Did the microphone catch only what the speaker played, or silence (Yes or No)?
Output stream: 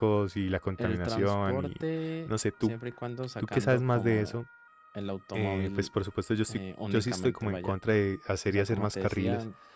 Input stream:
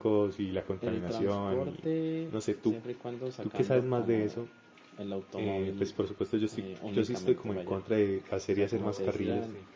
No